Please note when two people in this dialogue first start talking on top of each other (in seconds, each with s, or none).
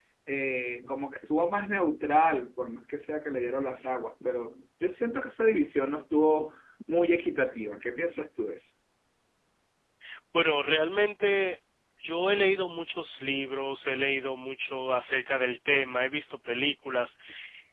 none